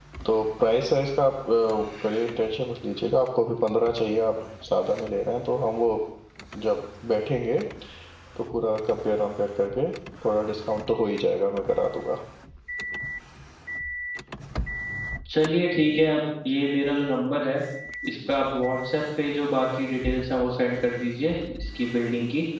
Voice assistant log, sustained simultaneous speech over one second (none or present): none